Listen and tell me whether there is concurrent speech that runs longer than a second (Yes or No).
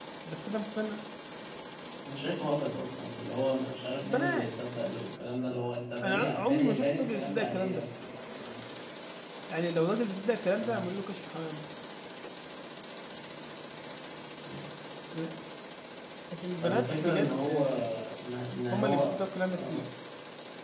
Yes